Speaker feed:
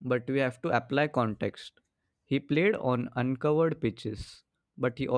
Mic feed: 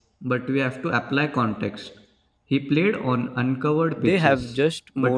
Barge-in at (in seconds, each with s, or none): 4.0 s